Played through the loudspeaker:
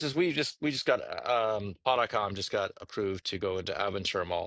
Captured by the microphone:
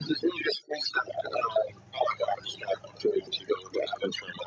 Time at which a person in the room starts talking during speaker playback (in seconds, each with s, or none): none